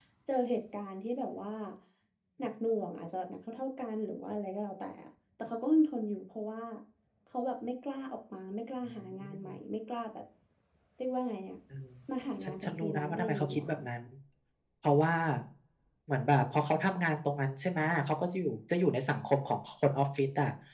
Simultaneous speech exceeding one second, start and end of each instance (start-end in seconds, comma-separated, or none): 12.4-13.7